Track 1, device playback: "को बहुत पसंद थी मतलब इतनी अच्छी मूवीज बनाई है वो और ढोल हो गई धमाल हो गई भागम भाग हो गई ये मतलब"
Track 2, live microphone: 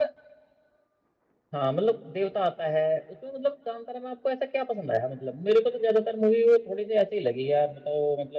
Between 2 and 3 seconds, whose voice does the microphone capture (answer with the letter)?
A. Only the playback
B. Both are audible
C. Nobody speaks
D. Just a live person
D